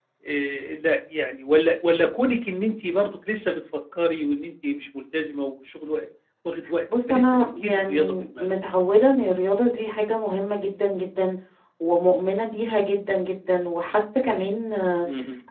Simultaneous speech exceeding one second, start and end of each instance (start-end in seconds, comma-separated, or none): 7.1-8.5